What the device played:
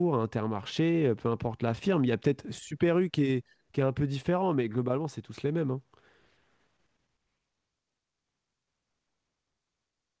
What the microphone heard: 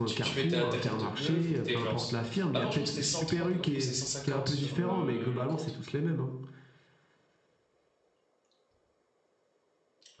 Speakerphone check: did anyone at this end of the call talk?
Yes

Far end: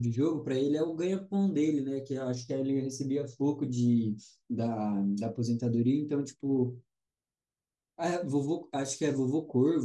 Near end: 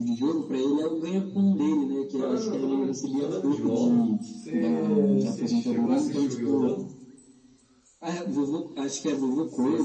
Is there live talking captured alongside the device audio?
Yes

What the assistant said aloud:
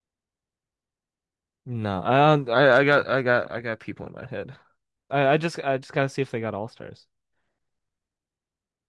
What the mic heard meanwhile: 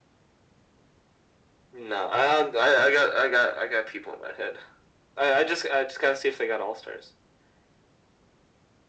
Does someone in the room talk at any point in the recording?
No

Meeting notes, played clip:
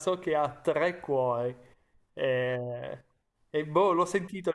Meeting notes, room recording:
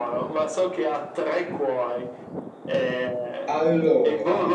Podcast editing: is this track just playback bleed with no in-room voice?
No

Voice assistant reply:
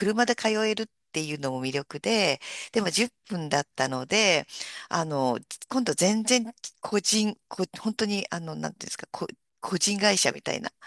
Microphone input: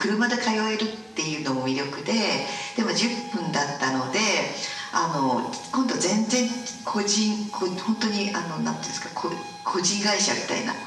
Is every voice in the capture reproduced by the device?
Yes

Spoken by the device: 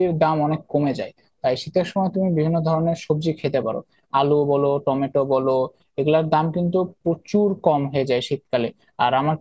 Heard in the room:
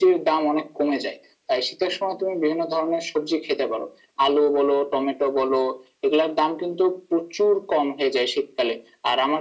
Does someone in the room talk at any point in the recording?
No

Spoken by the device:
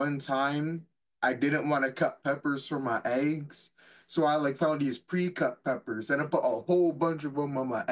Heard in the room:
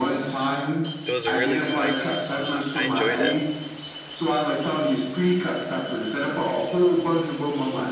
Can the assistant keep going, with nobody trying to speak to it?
No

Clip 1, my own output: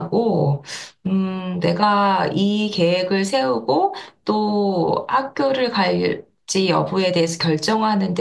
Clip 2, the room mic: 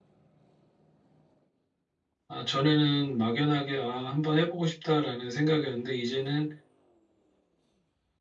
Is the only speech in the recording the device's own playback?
No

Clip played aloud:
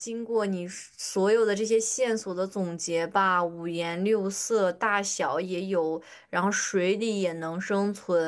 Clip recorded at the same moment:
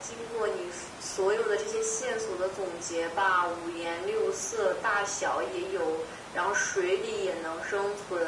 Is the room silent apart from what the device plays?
Yes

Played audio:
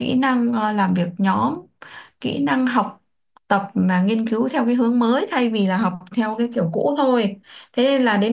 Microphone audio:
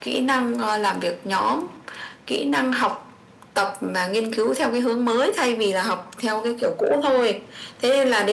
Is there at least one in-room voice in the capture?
No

